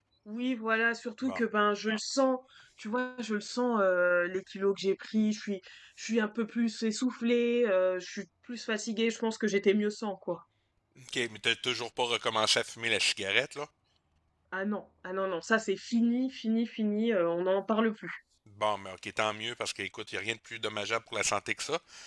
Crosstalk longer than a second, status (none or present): none